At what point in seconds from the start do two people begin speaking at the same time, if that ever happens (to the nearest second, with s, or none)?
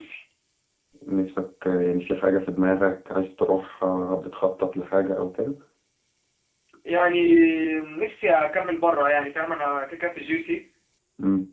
none